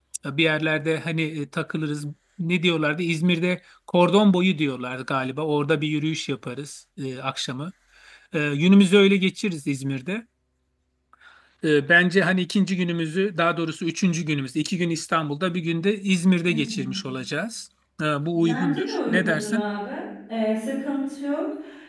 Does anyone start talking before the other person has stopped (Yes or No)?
Yes